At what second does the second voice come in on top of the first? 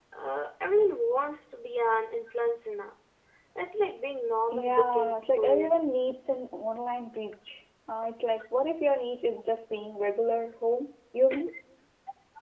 5 s

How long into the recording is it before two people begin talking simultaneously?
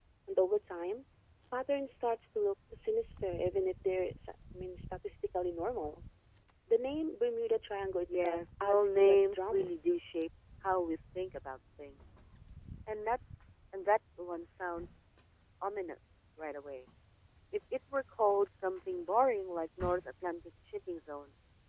8 s

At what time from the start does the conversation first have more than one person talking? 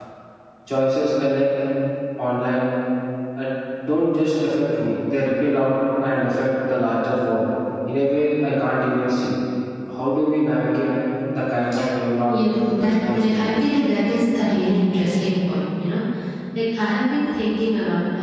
12 s

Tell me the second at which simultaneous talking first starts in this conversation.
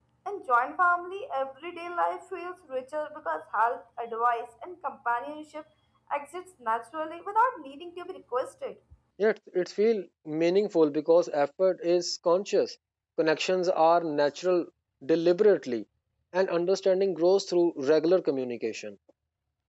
none

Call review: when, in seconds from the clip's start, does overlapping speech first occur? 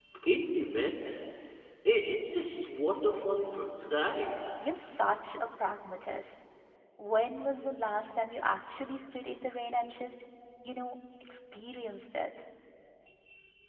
none

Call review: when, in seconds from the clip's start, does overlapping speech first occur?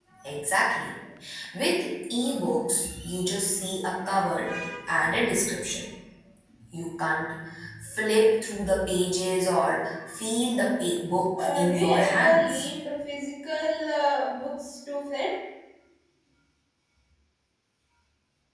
11 s

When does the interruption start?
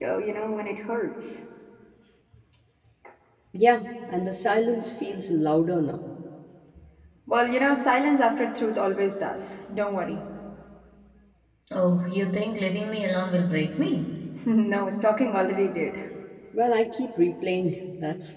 none

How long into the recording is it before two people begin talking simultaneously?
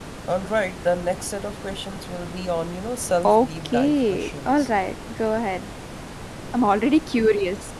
3 s

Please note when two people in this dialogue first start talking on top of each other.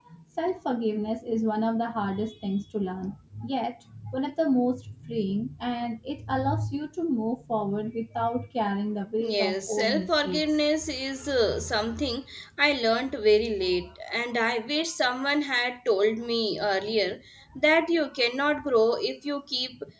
9 s

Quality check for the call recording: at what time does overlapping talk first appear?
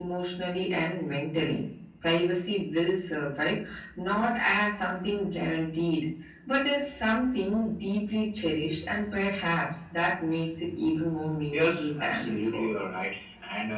12 s

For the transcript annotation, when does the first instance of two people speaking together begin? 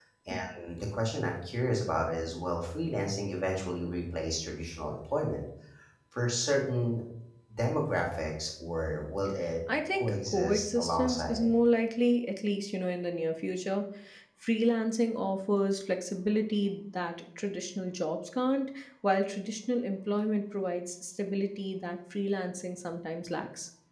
10 s

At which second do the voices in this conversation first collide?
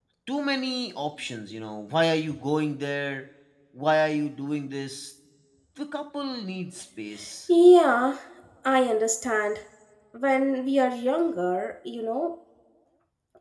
none

